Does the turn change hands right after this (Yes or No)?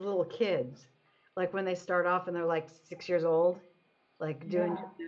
No